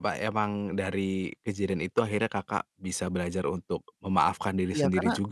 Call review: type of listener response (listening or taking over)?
taking over